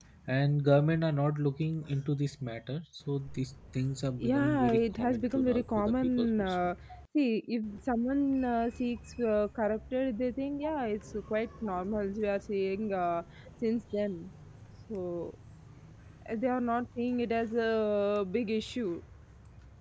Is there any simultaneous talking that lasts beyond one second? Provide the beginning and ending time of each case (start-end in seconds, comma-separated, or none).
4.2-6.5